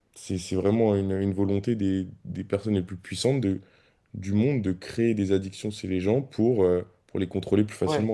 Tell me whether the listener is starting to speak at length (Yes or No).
Yes